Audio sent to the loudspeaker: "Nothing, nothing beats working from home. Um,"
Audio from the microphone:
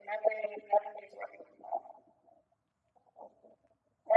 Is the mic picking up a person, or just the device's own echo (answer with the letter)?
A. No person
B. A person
A